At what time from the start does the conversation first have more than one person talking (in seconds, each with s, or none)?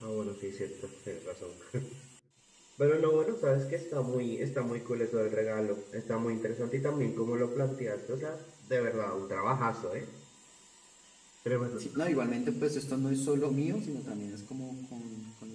none